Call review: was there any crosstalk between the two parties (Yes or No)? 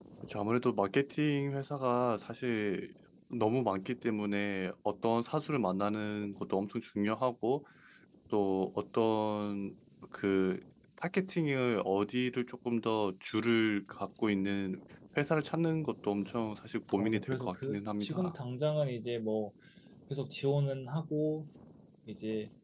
Yes